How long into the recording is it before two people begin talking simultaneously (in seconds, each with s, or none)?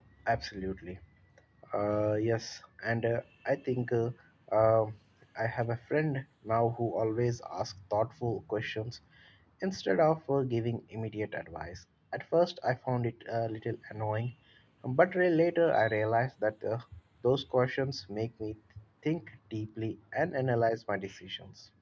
none